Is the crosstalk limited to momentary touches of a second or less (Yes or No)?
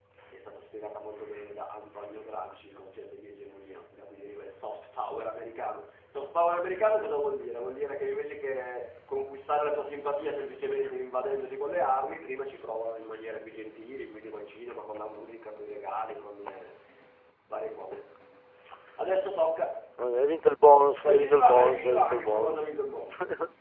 No